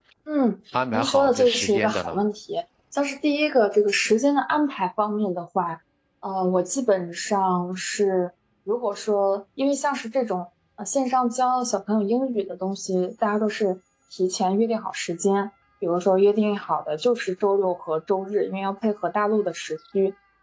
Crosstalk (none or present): present